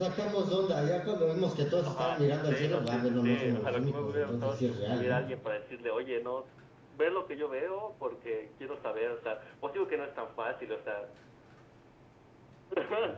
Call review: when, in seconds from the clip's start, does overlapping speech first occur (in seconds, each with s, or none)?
1.8 s